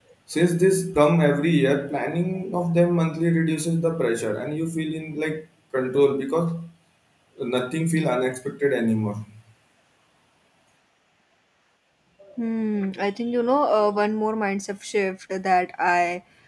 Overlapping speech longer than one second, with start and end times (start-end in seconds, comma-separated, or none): none